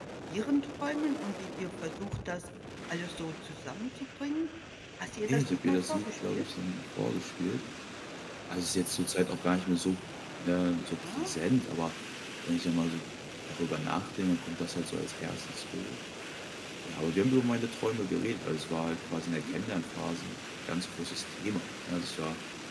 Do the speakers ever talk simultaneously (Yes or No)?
Yes